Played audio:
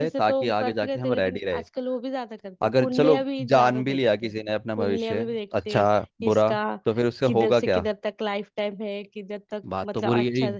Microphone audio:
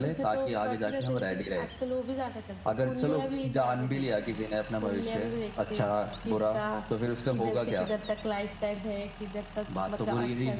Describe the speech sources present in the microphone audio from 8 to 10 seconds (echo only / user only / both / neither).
echo only